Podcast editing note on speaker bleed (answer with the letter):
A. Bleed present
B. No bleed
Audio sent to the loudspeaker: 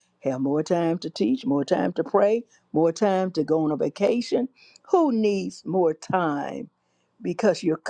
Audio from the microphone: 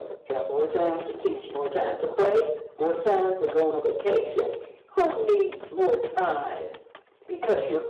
A